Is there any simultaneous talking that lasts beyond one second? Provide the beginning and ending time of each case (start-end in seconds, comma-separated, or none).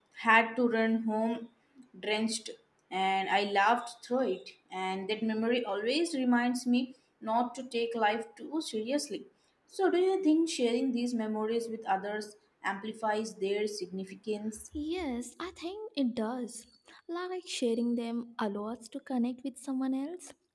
none